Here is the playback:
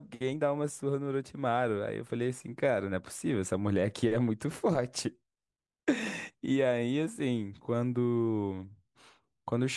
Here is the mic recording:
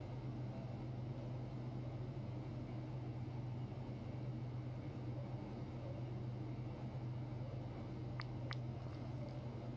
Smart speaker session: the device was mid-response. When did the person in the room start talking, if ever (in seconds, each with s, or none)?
none